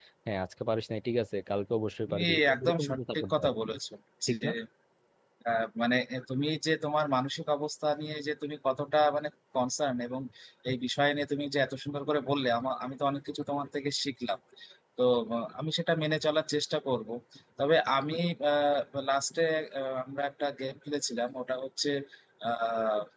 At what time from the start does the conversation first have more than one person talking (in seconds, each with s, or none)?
2.1 s